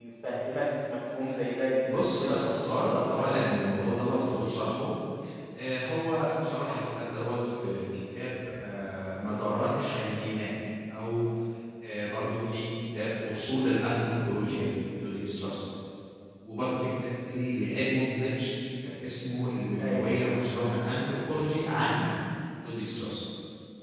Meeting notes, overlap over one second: present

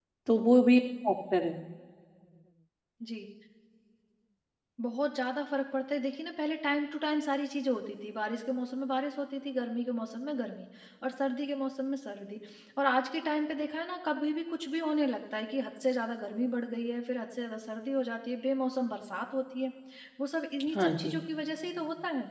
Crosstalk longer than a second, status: none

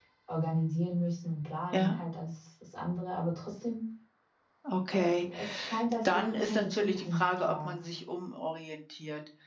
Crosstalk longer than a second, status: present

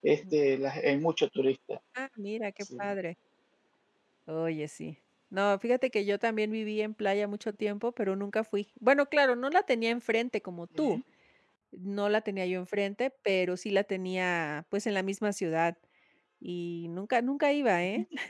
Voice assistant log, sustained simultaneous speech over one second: none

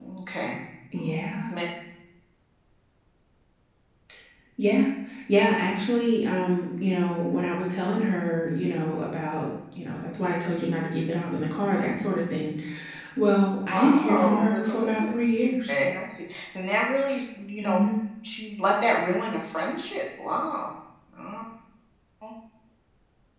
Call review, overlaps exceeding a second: present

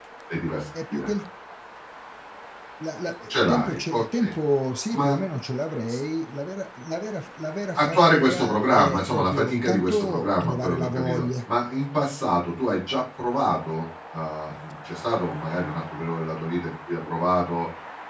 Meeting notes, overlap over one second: present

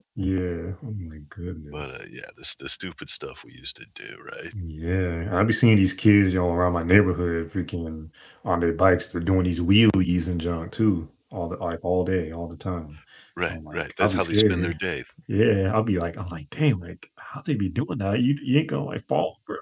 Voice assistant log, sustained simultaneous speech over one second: present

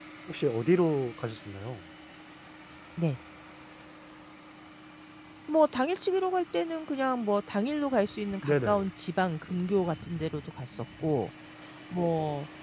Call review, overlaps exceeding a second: none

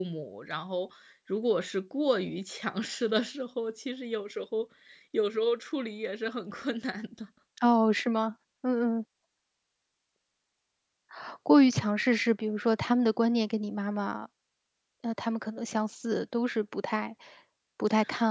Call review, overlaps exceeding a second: none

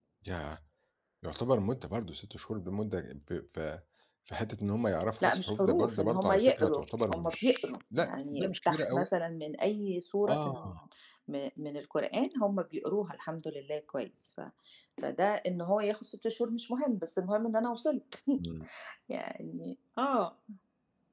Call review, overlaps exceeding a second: present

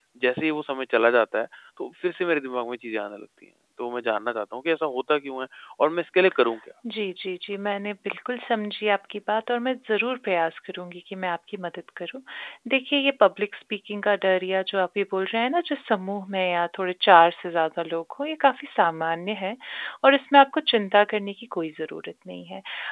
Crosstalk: none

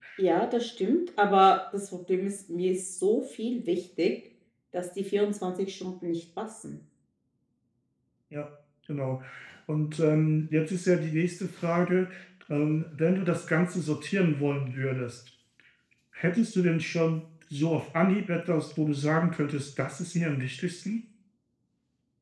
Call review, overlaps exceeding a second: none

